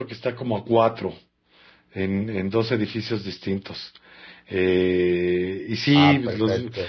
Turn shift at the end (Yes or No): No